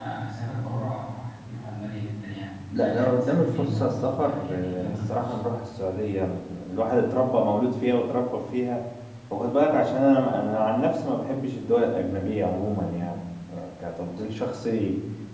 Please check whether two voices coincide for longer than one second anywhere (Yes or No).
Yes